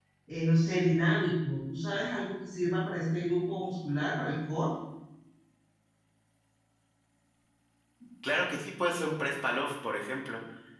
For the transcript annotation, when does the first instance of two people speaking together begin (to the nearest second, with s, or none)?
none